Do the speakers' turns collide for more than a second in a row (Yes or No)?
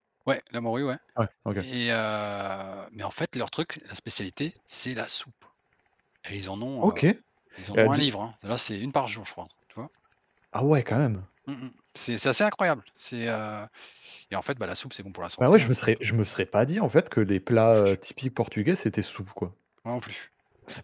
No